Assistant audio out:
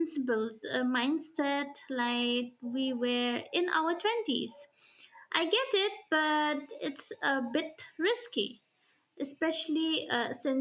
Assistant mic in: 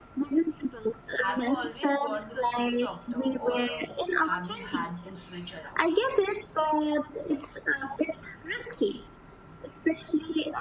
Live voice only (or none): Have you always gone to the same doctor, or um, have you had to switch around?